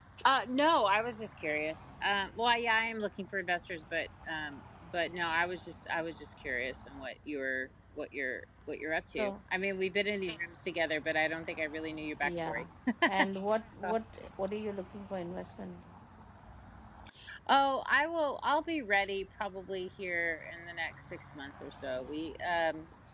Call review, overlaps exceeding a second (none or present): none